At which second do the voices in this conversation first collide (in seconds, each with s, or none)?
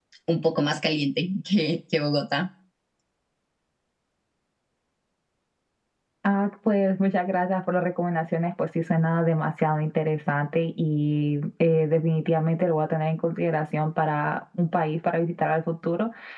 none